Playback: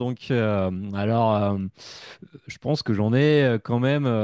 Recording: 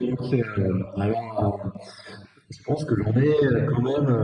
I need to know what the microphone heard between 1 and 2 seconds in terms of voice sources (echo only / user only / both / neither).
echo only